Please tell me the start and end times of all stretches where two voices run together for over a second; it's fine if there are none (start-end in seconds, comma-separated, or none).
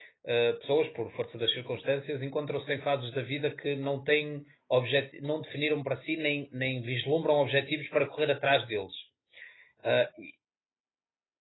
none